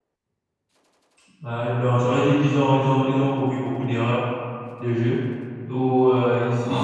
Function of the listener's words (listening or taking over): listening